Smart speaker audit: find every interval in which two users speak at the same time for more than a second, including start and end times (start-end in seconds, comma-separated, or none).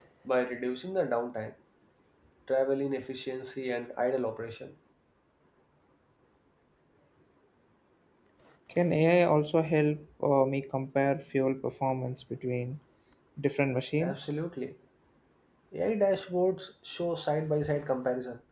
none